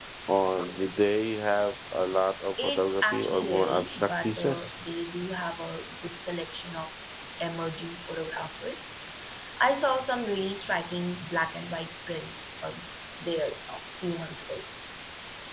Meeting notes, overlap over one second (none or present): present